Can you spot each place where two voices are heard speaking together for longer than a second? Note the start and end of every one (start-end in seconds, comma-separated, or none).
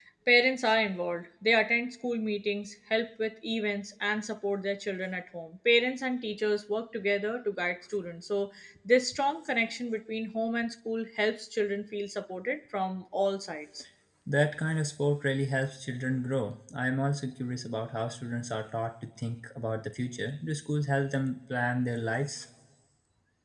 none